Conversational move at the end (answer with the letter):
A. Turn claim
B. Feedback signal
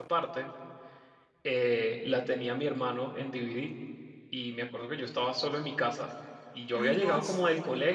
B